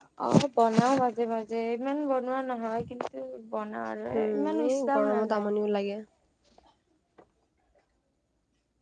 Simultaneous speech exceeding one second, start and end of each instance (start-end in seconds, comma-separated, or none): 4.2-5.5